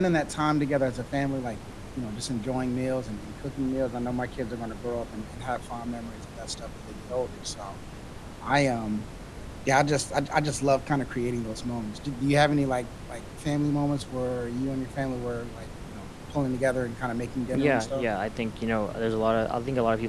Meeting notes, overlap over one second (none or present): none